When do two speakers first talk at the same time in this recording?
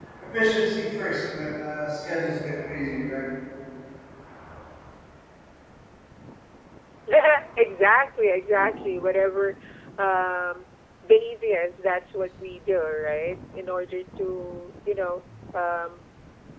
none

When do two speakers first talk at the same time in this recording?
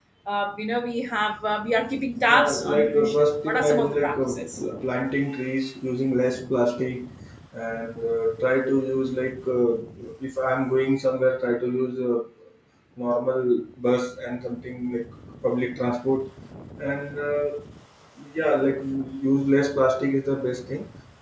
2 s

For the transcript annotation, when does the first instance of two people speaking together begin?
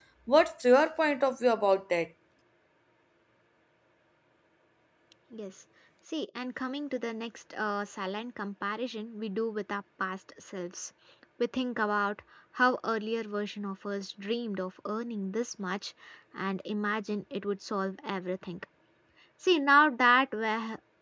none

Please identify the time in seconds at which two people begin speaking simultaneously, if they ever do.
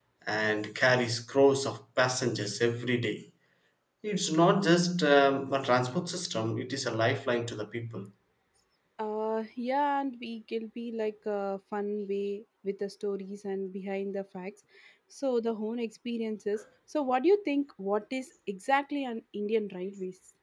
none

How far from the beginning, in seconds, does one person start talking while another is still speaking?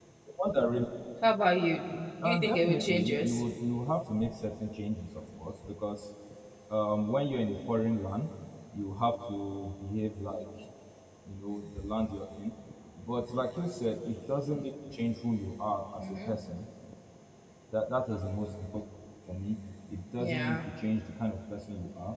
2 s

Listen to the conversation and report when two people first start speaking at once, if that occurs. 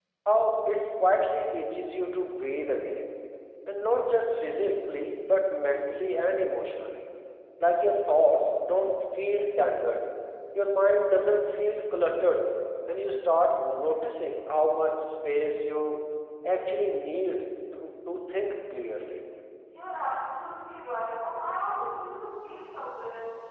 none

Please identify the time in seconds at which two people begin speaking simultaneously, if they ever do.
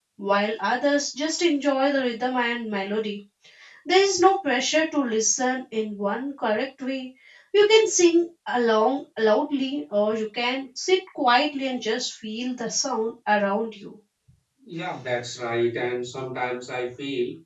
none

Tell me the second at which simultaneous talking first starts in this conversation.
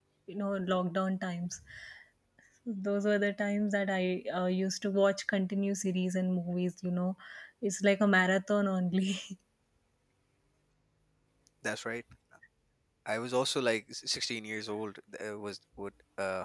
none

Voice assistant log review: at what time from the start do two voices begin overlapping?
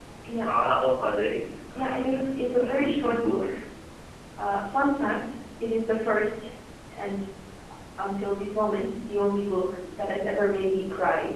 2 s

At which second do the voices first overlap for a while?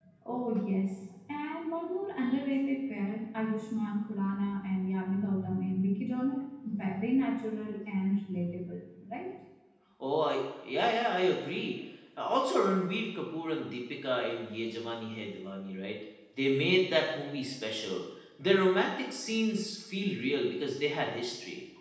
none

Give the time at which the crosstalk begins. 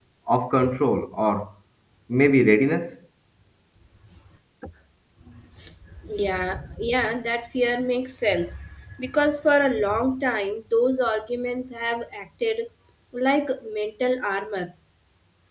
none

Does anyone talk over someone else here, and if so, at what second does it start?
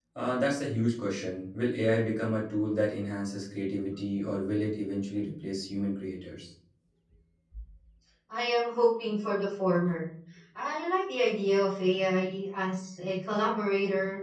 none

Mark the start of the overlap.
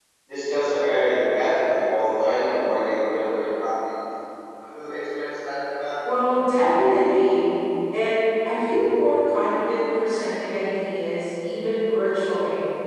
none

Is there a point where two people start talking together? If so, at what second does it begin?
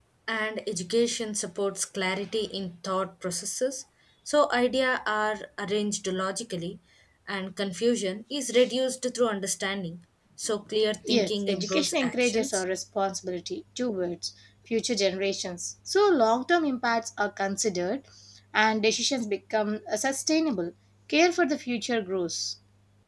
11 s

